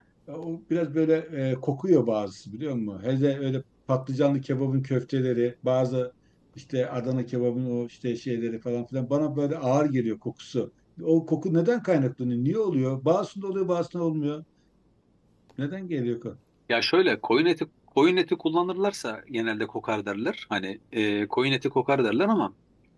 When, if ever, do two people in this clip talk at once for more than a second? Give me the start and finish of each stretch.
none

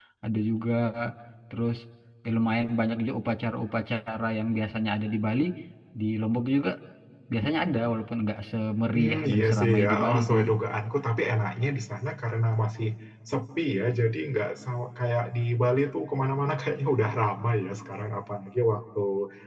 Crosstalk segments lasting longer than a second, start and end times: 9.0-10.3

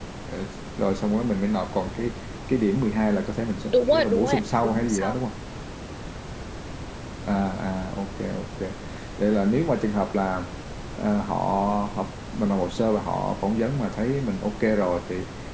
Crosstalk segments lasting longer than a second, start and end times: 3.7-5.2

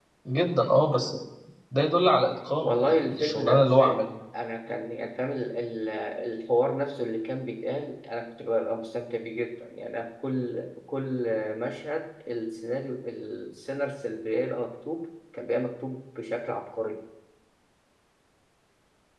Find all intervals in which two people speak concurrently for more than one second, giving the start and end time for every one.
2.6-4.0

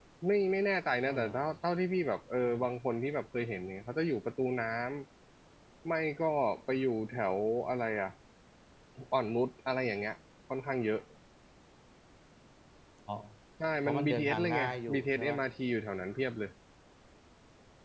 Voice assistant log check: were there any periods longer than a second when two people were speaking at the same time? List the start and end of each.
13.8-15.4

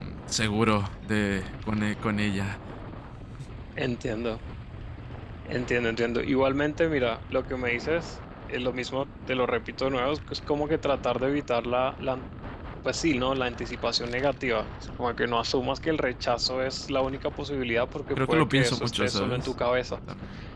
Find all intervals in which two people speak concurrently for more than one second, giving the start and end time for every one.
18.2-19.5

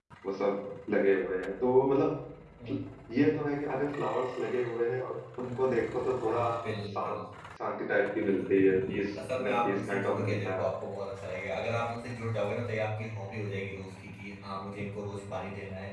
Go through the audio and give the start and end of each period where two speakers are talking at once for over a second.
8.2-10.6

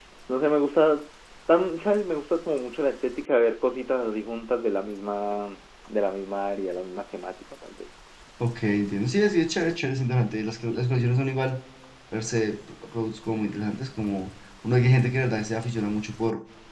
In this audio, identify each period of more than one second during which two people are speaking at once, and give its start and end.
none

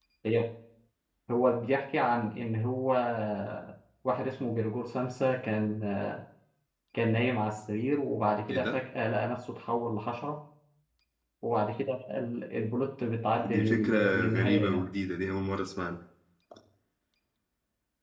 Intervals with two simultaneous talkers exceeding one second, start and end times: 13.4-14.9

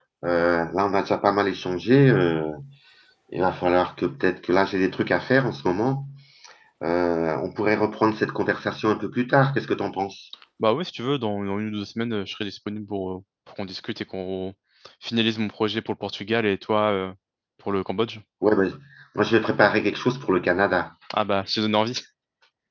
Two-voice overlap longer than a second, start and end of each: none

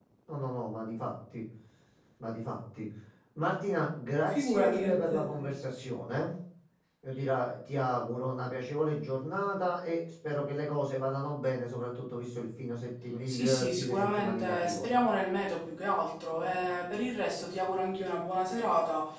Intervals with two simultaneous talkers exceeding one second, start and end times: 4.3-5.5, 13.3-14.8

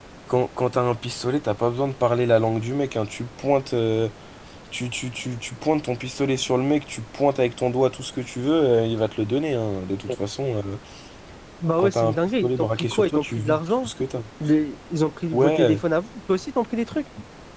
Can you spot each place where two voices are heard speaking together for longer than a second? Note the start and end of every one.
11.8-13.9

